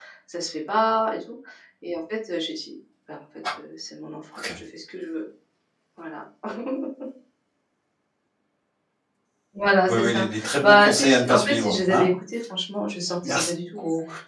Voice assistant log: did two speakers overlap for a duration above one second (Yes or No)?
Yes